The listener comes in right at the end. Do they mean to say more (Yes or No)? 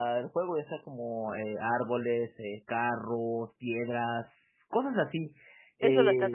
Yes